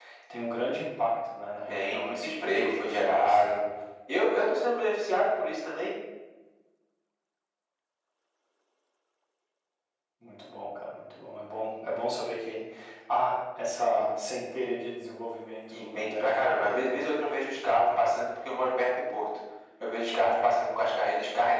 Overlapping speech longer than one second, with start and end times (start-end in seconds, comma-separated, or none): 1.7-3.6, 15.7-17.3